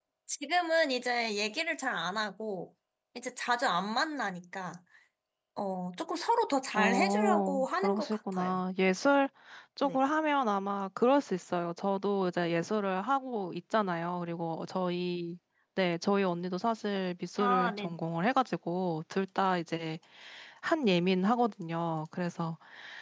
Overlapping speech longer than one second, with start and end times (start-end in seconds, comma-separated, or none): 6.7-8.6